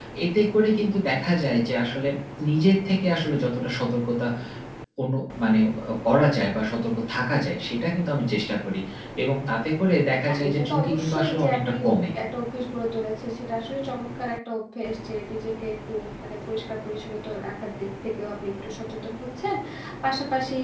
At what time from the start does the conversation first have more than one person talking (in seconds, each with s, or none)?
10.2 s